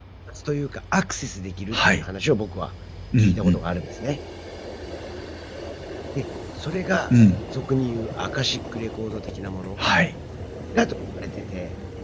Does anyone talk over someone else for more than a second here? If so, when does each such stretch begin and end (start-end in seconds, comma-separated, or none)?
none